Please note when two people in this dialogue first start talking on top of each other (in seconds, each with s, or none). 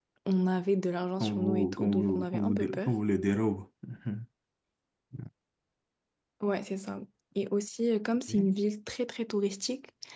1.2 s